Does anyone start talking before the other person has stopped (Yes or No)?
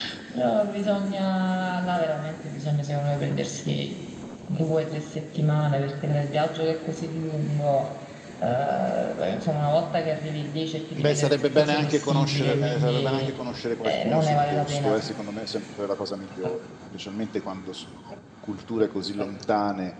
Yes